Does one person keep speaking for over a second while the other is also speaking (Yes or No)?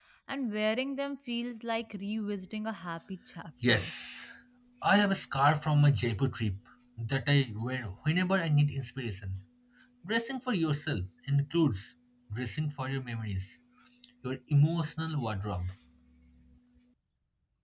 No